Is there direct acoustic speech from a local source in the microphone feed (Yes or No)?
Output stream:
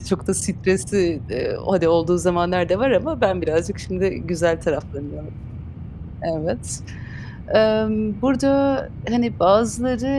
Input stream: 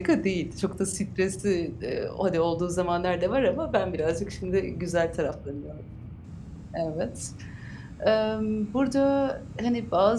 No